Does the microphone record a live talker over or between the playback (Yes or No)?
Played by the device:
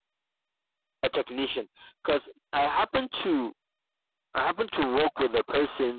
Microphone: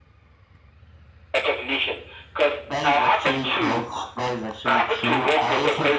Yes